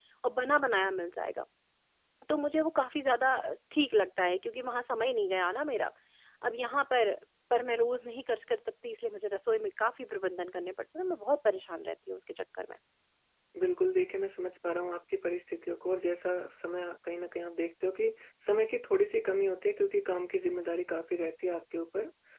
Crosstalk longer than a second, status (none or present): none